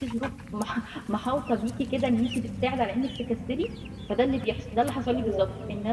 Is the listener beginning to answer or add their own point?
No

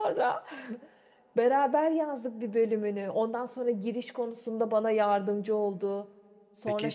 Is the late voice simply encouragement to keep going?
No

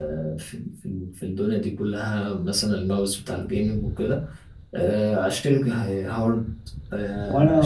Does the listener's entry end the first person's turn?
Yes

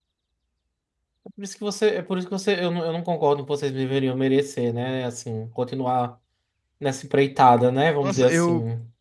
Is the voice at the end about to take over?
Yes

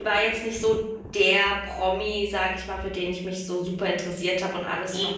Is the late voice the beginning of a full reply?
No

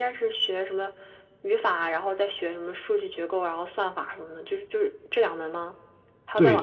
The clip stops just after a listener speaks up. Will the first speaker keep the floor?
No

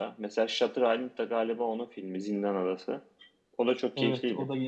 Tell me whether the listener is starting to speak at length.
Yes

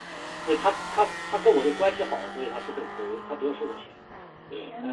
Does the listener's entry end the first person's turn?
No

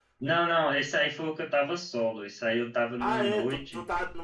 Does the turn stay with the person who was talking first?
No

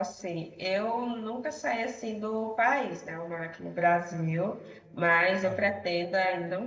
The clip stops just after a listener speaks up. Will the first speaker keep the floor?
Yes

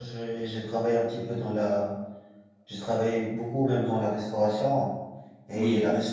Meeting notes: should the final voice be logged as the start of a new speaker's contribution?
No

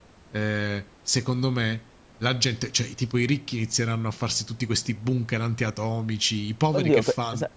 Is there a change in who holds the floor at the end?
Yes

